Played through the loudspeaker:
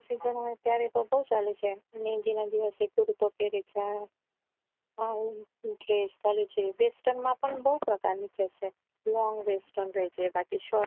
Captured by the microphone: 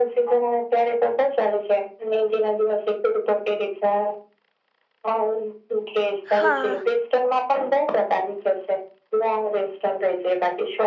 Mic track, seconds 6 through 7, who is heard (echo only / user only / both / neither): both